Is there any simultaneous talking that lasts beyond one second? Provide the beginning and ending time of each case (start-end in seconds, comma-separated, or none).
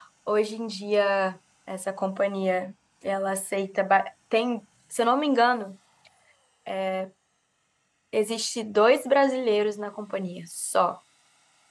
none